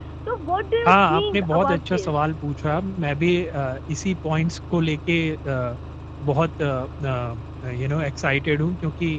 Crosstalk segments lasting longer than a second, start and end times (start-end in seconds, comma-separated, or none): 0.8-2.2